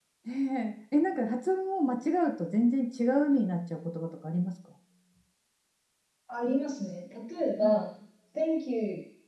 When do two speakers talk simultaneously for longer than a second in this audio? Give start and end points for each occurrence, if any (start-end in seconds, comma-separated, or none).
none